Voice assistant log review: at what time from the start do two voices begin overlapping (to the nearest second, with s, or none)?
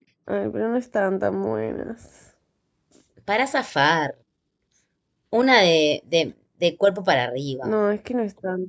none